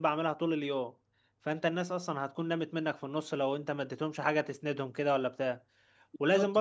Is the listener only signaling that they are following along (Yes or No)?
Yes